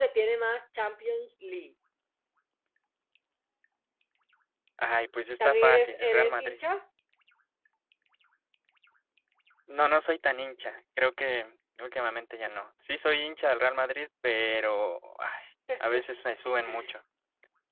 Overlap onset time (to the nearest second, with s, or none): 5 s